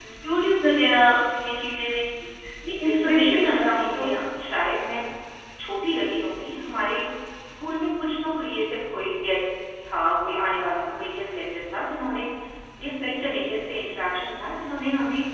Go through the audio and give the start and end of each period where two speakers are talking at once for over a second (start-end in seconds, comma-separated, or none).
2.8-4.0